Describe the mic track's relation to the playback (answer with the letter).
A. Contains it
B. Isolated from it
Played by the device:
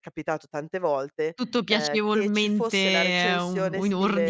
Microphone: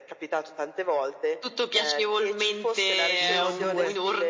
A